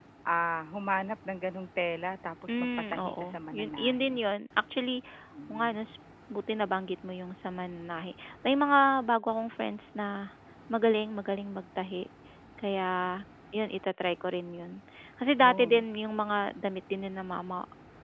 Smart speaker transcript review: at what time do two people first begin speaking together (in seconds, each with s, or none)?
2.5 s